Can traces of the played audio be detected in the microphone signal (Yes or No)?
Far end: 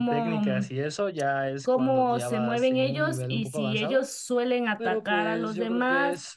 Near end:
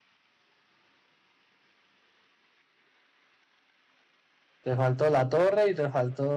No